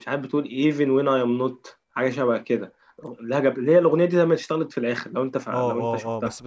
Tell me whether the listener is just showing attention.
No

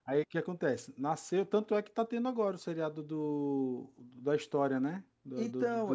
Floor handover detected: Yes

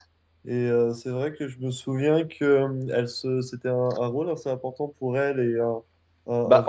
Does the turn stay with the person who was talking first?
No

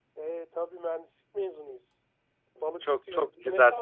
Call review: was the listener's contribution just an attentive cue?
No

